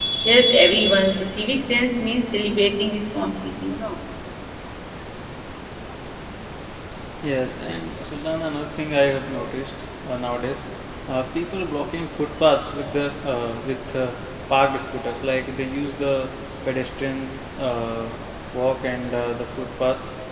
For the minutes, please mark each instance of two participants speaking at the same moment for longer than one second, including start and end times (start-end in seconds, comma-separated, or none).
none